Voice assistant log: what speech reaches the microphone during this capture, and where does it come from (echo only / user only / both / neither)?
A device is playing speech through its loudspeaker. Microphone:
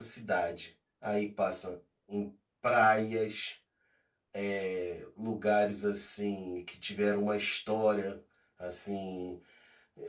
user only